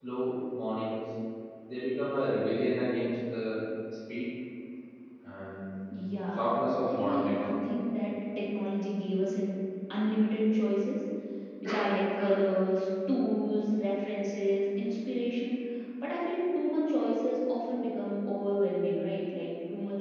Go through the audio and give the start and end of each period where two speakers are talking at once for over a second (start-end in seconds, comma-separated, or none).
5.9-7.8